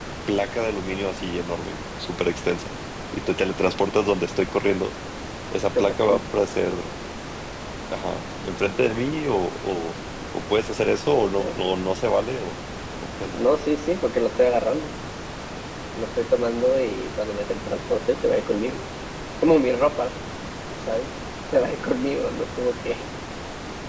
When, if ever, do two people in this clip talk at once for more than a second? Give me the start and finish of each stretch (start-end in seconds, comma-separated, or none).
none